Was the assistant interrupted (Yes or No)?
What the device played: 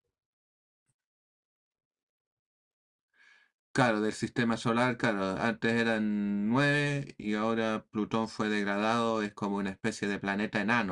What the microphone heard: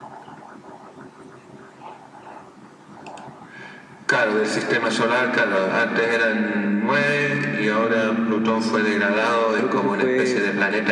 Yes